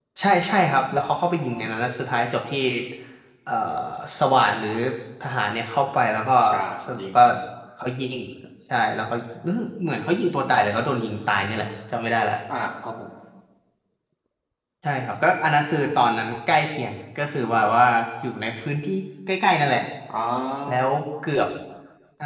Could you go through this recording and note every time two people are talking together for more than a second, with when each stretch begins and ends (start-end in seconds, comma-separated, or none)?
none